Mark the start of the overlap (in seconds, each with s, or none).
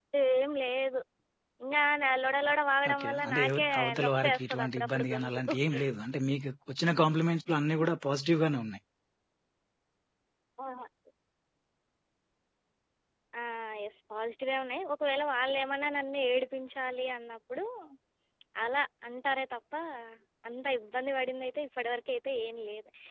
2.9 s